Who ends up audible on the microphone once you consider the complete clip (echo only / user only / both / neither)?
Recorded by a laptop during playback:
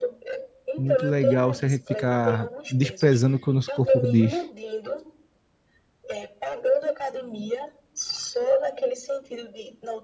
both